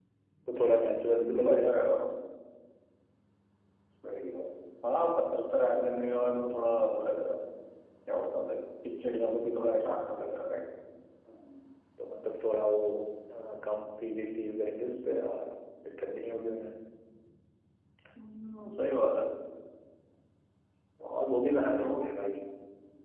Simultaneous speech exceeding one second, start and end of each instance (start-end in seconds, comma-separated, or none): none